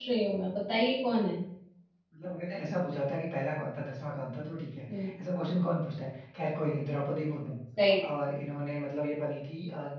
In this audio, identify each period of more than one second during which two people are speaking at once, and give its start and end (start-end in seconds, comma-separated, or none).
none